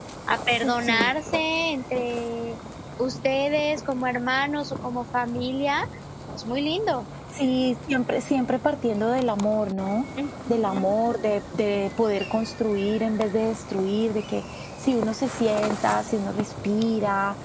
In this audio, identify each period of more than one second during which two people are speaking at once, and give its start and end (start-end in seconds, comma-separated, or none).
none